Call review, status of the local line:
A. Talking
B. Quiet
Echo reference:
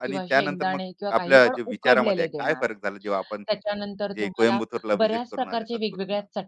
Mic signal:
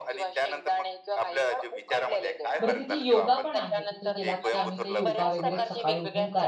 A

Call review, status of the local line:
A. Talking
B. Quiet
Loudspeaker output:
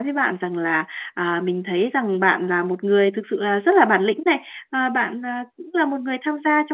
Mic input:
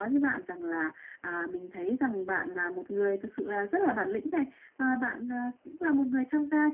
B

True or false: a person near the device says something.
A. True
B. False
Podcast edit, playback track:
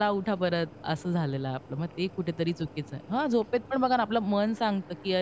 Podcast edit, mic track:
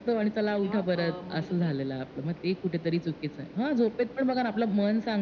A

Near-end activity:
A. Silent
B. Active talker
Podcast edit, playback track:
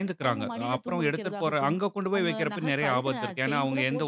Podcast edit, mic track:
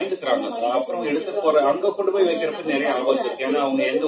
A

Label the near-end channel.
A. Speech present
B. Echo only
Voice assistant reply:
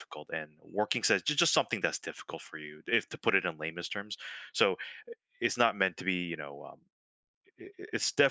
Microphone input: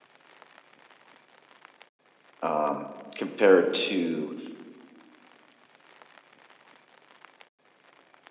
A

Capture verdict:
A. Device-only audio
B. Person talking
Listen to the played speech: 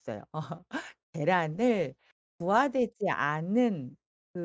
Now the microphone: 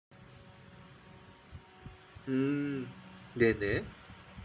B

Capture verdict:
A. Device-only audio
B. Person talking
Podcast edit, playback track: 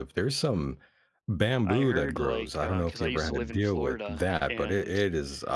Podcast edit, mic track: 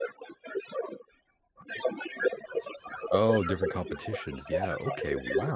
B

